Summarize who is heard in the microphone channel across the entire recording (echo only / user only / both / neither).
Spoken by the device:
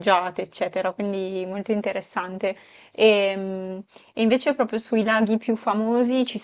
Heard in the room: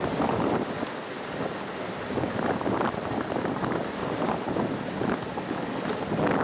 neither